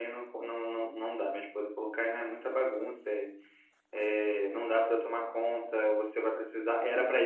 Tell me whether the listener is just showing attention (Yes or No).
Yes